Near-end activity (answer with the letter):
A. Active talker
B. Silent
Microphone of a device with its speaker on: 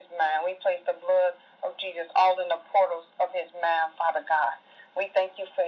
B